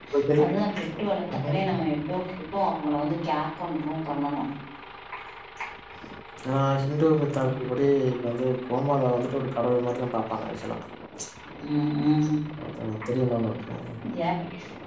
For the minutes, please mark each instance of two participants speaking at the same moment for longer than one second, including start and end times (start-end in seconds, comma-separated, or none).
none